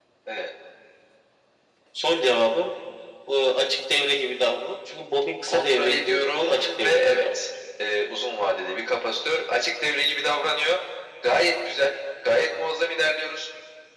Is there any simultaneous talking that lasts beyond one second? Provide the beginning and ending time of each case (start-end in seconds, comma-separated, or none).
5.5-7.4